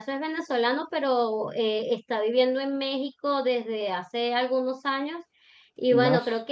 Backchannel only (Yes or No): Yes